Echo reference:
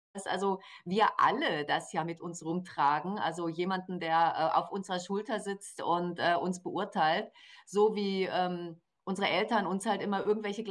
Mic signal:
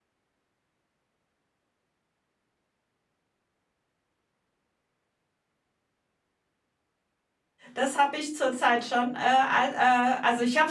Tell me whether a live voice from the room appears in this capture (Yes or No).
Yes